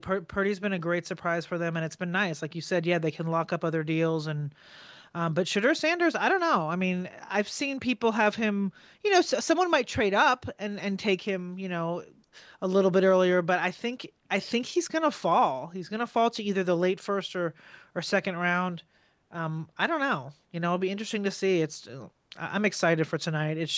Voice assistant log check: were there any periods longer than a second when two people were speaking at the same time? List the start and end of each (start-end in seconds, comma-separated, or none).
none